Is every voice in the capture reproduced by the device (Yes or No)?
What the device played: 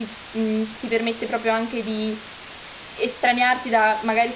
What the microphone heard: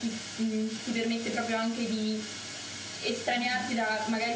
No